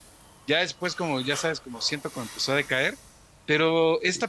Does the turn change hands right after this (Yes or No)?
No